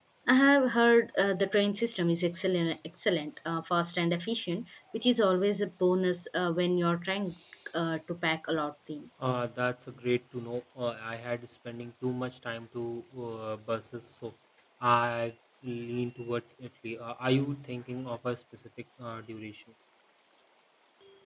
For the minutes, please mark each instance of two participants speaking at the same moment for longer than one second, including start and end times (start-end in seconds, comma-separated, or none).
none